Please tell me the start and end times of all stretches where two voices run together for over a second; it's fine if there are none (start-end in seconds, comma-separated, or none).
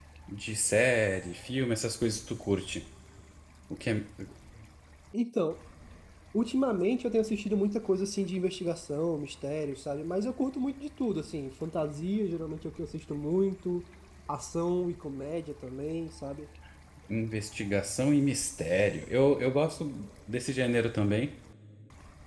none